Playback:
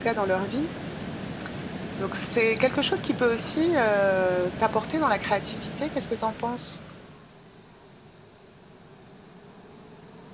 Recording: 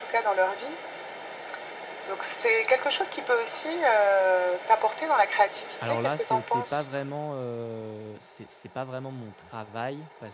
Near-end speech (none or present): present